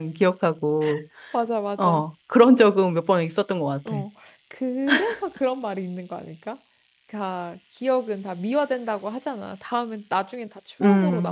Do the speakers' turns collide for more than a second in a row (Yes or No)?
No